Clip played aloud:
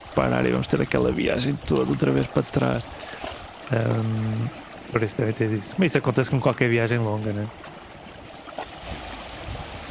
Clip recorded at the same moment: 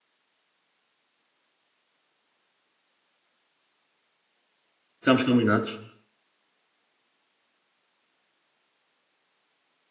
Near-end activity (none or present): present